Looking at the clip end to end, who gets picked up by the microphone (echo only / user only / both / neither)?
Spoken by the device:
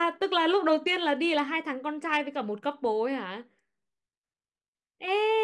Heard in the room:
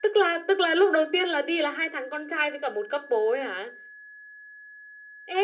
echo only